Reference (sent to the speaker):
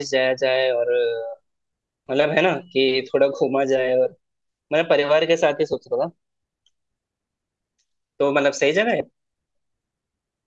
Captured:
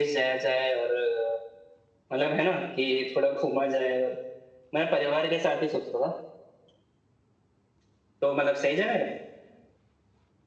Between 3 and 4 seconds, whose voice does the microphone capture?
echo only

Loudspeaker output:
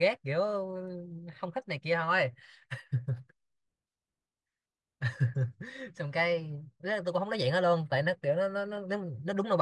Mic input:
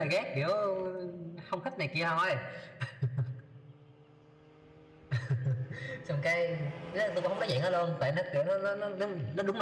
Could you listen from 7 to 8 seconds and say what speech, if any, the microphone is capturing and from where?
echo only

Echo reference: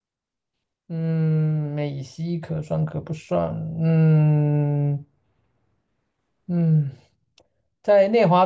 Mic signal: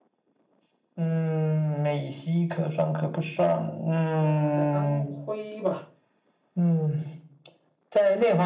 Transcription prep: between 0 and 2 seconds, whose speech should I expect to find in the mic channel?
echo only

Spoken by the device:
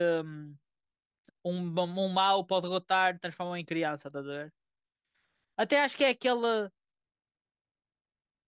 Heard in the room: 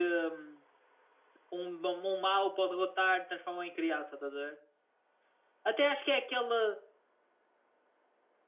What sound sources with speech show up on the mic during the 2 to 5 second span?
echo only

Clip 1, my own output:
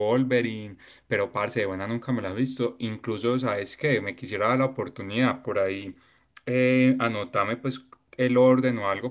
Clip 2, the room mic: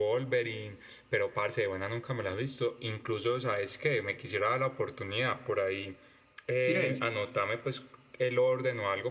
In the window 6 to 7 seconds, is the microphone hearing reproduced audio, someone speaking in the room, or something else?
both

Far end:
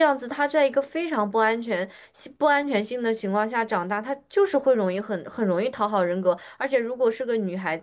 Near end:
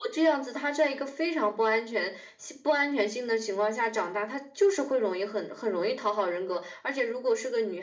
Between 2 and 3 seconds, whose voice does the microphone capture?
echo only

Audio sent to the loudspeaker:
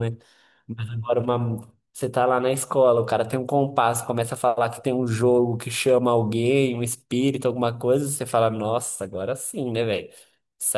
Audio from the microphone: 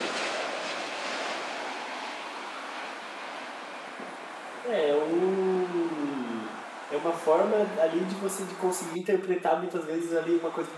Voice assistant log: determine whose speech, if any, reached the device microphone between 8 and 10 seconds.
user only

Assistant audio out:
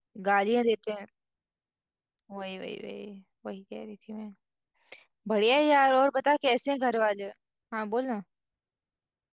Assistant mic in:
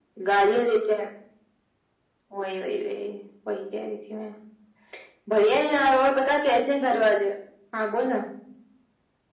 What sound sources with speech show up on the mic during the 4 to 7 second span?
echo only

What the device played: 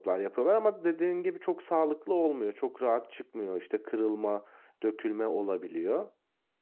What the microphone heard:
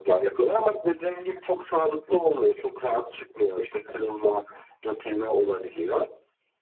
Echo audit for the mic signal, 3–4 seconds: echo only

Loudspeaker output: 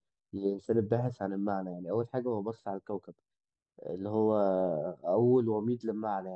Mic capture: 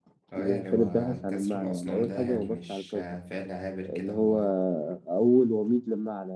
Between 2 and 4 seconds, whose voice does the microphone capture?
both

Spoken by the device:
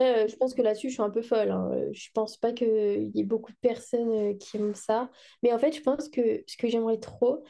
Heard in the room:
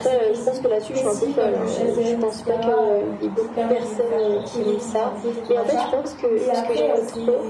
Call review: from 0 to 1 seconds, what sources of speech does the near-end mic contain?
both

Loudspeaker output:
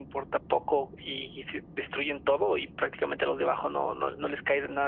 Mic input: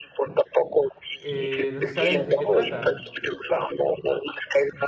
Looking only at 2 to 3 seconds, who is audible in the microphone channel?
both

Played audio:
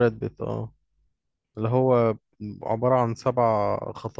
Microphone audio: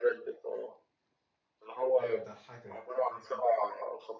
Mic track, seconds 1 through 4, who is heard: both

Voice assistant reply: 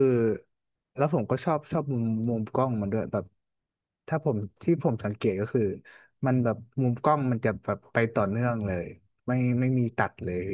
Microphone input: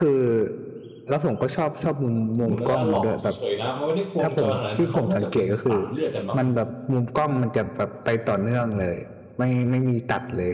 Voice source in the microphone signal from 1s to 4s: both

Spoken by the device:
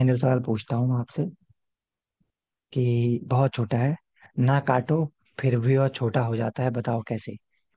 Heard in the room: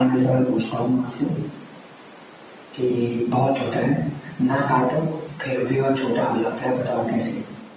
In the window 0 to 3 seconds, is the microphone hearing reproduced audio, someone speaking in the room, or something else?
echo only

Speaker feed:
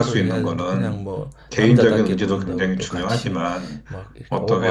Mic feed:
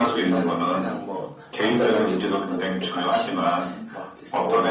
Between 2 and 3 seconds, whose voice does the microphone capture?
echo only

